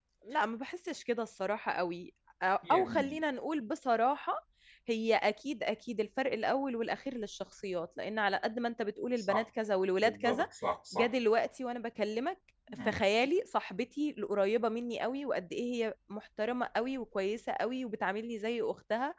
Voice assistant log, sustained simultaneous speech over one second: none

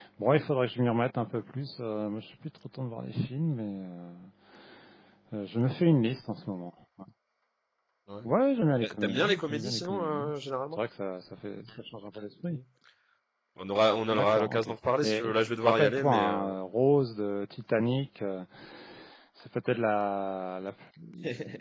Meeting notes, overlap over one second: present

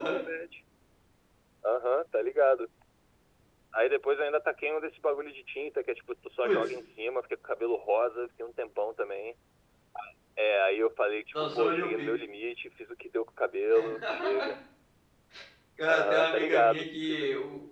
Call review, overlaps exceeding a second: present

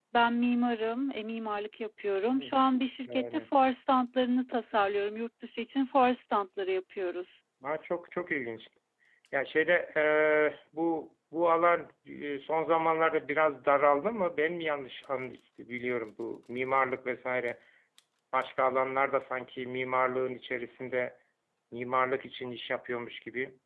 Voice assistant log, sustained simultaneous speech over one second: none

